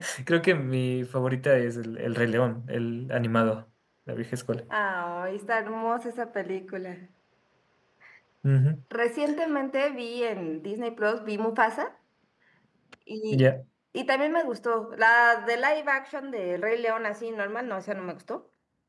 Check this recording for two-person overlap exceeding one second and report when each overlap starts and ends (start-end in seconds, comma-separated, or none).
none